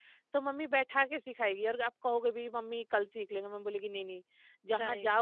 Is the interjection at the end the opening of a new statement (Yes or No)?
Yes